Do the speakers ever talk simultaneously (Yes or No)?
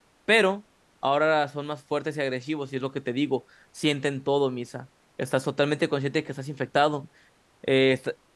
No